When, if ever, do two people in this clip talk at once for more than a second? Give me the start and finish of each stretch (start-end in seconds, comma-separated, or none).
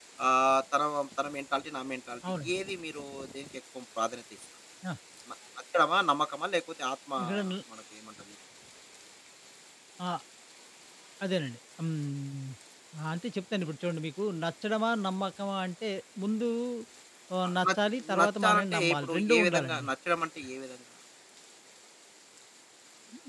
18.2-19.9